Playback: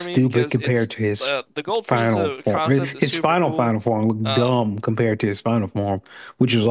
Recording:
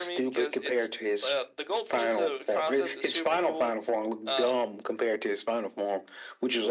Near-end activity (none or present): none